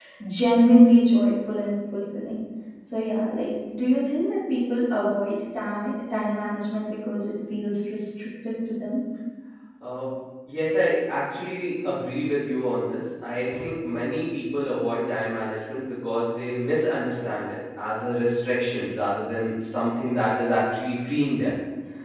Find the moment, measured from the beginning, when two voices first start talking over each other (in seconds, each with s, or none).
none